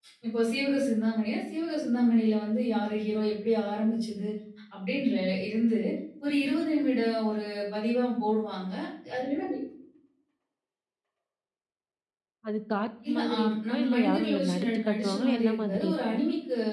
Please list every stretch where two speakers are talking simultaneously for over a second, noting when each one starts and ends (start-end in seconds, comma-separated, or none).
13.1-16.2